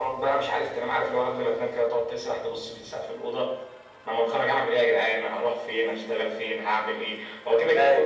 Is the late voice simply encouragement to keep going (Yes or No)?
Yes